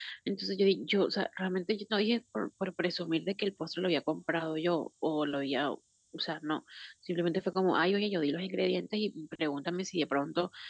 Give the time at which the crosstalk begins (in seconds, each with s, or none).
none